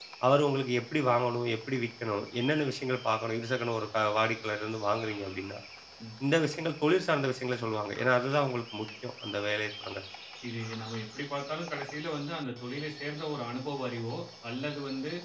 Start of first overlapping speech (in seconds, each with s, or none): none